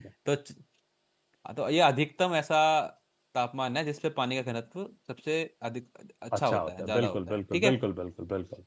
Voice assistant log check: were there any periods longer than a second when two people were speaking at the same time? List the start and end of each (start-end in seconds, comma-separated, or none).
6.4-7.7